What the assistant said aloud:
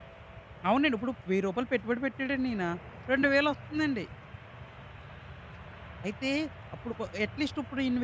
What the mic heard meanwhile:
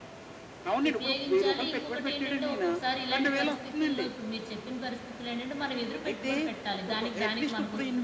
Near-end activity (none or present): present